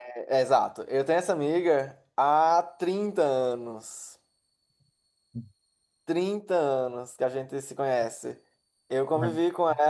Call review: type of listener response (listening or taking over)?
listening